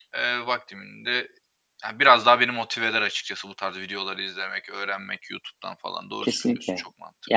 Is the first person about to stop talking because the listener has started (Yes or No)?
Yes